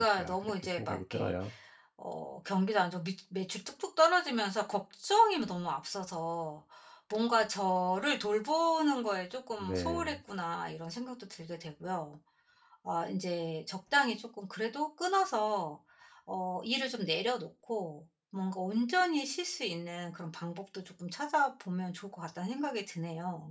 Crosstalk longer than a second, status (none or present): present